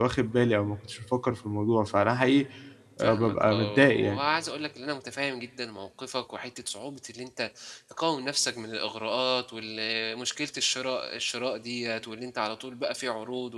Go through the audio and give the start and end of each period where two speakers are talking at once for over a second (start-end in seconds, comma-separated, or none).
3.0-4.2